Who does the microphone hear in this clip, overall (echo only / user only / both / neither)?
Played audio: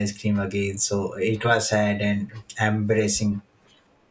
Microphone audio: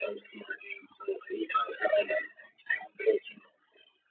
echo only